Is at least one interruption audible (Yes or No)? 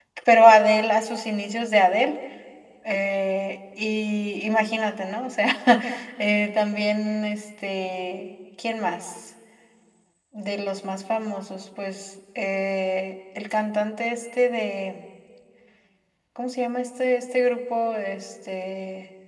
No